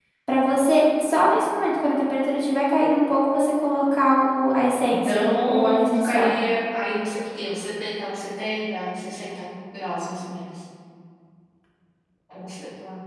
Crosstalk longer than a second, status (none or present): present